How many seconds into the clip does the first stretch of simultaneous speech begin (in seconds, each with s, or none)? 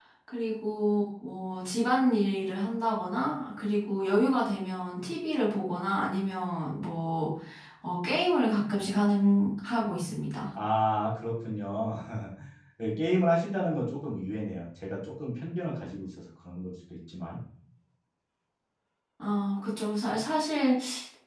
none